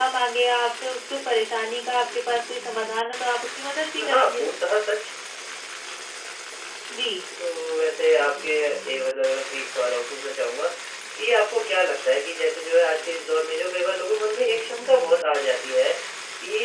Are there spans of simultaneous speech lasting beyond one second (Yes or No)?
No